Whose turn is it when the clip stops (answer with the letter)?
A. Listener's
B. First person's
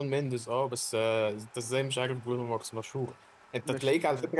B